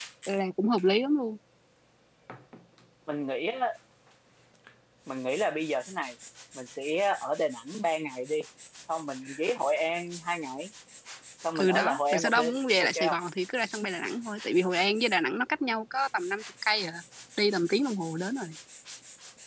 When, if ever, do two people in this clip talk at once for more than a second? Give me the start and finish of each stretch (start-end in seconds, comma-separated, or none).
11.6-13.2